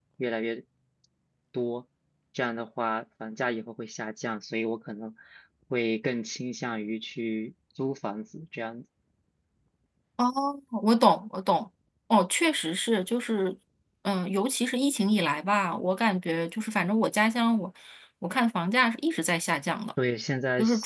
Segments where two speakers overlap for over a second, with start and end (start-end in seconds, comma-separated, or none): none